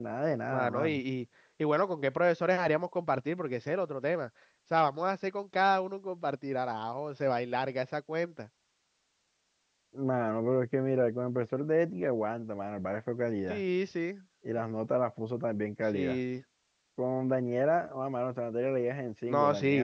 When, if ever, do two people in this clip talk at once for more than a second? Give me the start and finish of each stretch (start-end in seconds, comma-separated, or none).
none